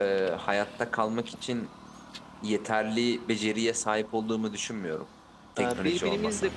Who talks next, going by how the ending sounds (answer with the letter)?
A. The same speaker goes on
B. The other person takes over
B